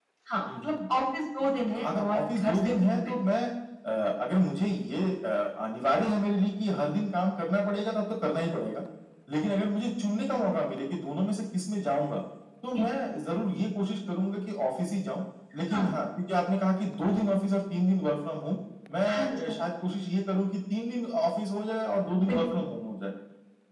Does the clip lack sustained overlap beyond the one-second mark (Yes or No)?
No